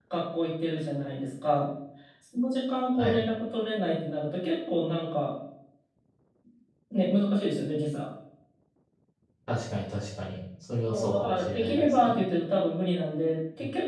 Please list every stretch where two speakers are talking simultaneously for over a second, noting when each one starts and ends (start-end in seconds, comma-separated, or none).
10.9-12.2